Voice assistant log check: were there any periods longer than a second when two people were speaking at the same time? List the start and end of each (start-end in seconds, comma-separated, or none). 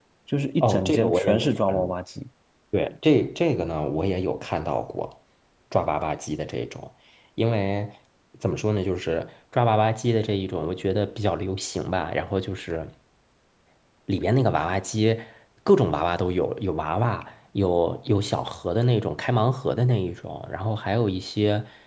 0.6-1.9